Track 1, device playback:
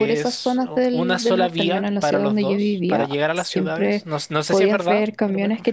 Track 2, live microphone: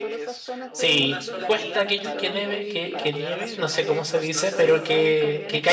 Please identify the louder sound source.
user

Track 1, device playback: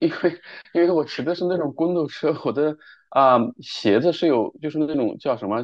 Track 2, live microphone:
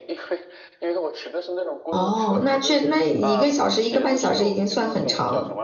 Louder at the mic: user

